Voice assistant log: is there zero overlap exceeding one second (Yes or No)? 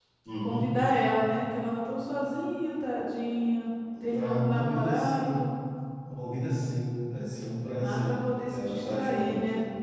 No